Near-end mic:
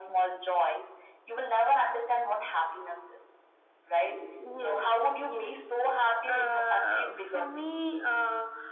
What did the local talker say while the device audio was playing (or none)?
none